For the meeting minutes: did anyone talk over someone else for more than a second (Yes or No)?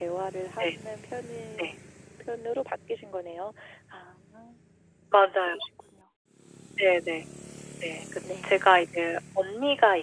No